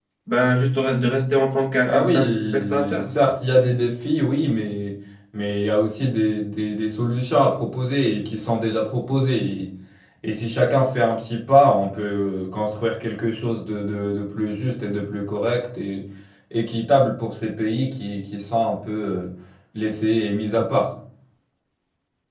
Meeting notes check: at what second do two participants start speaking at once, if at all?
2 s

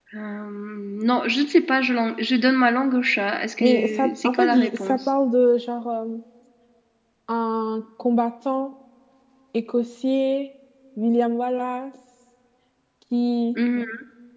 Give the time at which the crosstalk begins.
4 s

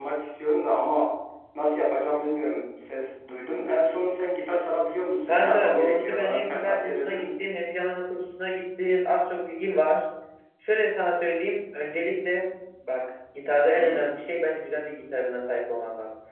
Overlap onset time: 5 s

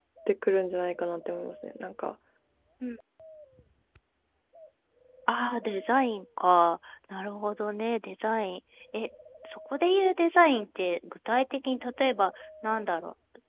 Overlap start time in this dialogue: none

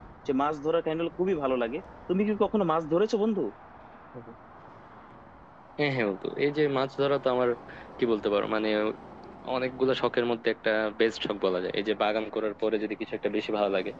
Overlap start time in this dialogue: none

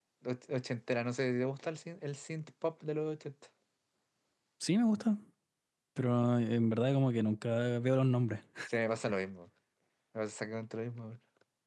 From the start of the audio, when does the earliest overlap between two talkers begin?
none

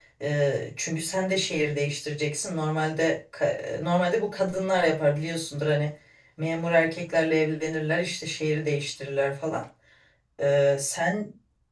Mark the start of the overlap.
none

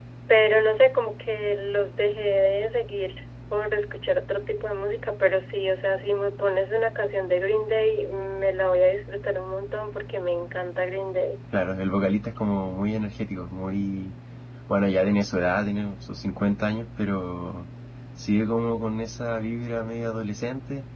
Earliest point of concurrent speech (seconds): none

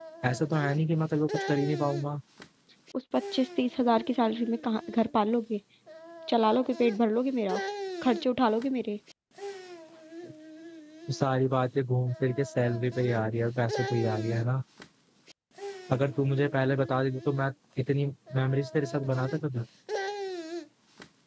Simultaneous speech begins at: none

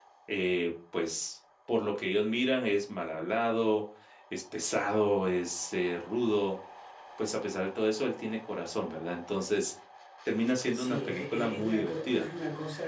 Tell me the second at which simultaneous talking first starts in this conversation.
11 s

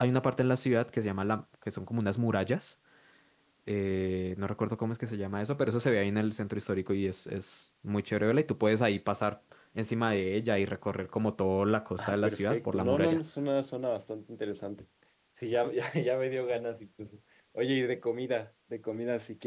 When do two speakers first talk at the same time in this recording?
12 s

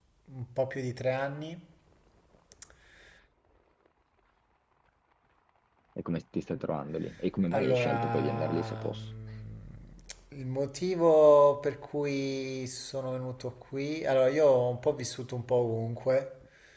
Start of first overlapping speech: 7 s

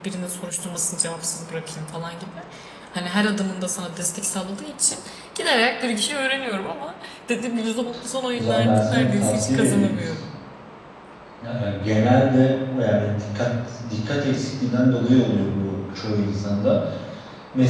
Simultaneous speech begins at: 8 s

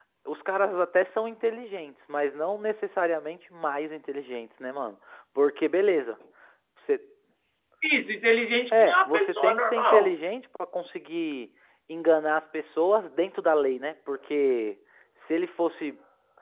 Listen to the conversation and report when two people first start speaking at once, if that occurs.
9 s

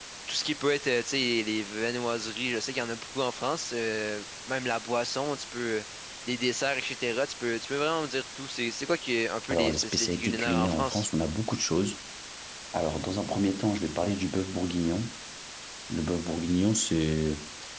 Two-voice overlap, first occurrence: 10 s

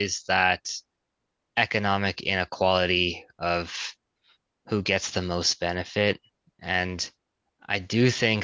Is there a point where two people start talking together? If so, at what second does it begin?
none

